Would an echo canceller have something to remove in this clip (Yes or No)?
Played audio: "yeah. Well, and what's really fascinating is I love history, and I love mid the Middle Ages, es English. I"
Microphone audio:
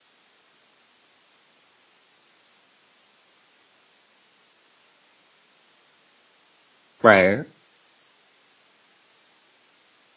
No